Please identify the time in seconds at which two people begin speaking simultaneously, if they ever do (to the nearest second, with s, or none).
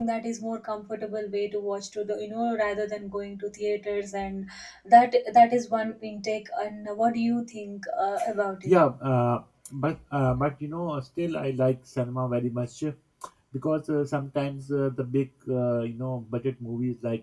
none